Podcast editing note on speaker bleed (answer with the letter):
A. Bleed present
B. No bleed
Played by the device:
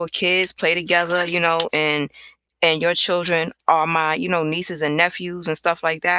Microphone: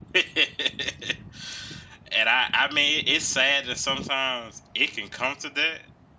B